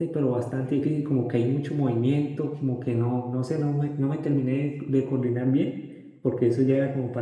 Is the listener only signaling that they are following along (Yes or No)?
Yes